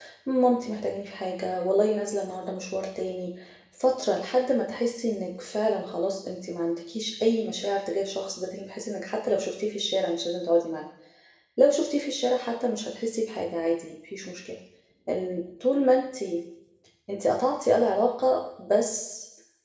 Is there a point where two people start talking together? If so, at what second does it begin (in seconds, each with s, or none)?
none